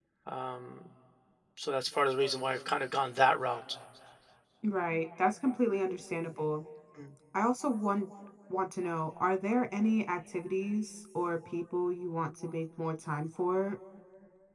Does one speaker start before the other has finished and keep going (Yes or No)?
No